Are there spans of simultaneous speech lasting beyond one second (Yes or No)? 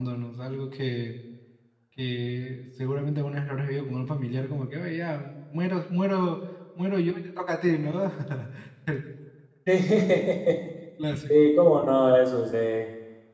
No